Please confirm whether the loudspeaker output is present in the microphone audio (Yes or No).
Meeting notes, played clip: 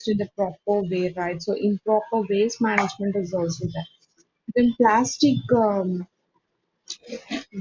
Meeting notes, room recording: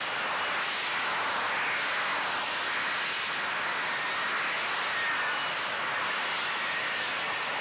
No